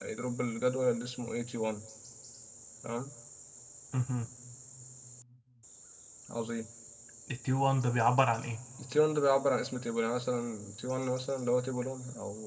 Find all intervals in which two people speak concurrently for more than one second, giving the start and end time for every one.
none

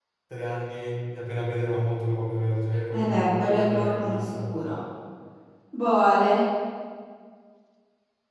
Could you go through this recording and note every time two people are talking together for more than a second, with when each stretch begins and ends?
2.9-4.5

